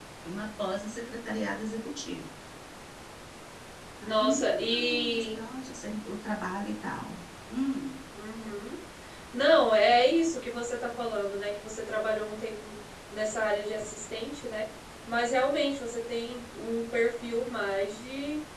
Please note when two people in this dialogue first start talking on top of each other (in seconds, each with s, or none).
4.0 s